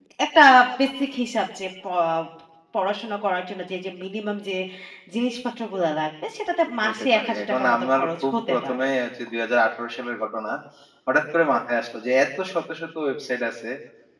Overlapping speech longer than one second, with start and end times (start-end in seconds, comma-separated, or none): 6.8-8.8